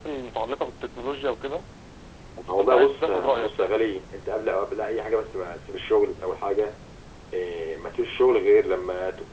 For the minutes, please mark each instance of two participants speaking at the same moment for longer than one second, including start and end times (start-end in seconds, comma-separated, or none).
2.5-3.7